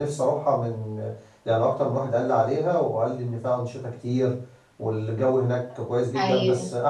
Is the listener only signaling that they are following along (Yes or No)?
Yes